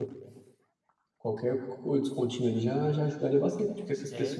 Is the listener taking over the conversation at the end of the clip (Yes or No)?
No